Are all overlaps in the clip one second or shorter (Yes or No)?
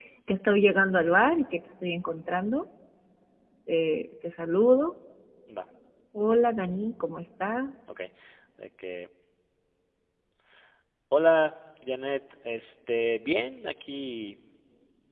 Yes